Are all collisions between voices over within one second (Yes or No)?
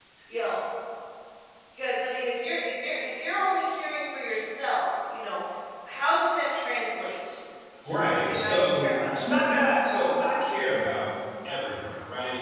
No